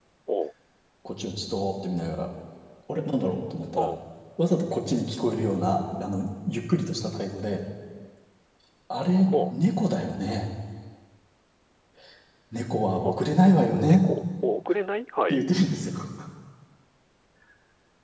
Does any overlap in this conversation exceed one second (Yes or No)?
No